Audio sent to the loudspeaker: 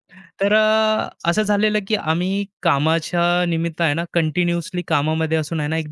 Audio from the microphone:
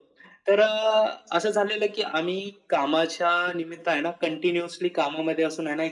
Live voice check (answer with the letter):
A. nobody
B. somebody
A